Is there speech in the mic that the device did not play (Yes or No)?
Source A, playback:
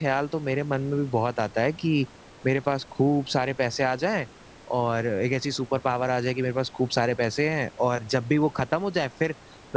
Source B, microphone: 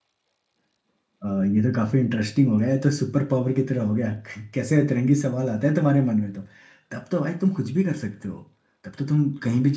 Yes